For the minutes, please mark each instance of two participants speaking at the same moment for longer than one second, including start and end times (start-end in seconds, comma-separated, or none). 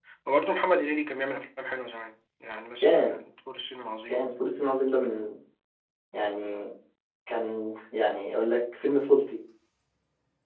none